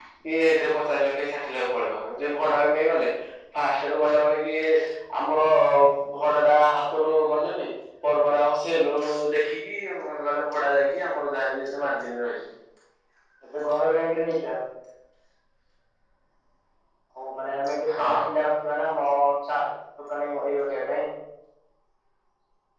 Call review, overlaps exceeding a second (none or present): none